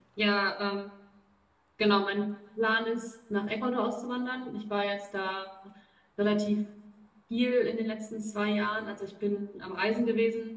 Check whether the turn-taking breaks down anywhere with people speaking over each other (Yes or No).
No